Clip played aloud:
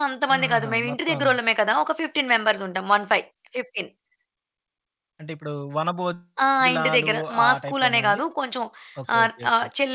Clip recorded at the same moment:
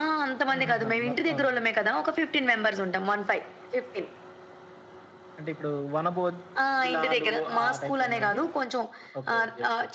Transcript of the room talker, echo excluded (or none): none